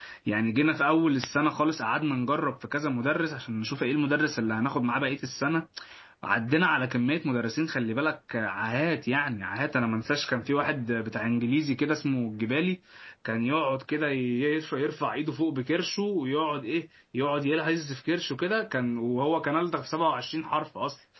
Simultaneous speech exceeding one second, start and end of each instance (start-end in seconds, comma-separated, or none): none